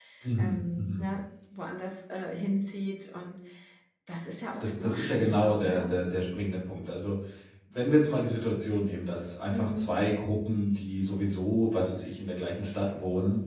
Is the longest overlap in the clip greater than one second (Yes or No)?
Yes